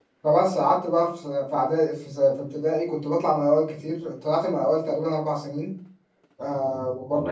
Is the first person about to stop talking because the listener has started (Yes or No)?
No